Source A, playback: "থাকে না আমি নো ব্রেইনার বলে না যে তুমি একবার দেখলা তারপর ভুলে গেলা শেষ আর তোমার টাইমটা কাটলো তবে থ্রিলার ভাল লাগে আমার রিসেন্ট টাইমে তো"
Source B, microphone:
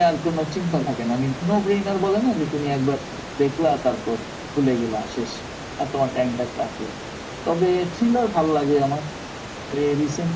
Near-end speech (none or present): none